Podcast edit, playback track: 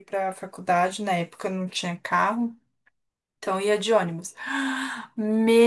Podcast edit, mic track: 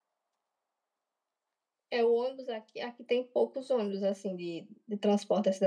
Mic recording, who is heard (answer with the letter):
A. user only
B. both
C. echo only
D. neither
A